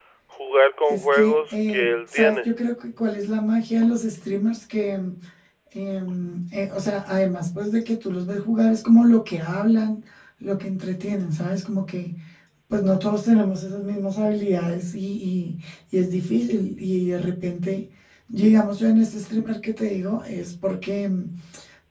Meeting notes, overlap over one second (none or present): present